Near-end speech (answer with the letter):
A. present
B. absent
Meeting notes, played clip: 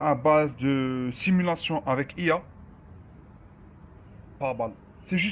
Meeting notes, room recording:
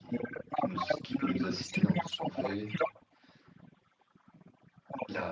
A